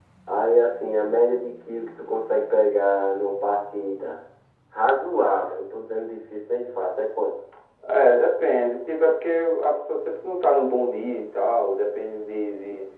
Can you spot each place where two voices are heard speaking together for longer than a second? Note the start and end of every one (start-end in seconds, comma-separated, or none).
none